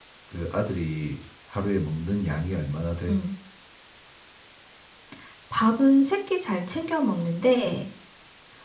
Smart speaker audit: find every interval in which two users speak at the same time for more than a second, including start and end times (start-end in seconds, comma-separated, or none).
none